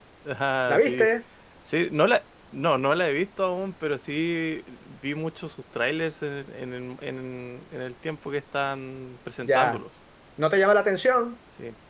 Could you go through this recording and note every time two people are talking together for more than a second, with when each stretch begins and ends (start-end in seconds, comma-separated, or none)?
none